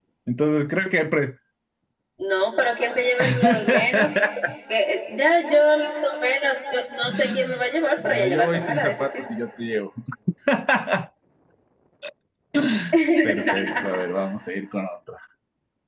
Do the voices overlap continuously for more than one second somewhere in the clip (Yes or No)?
Yes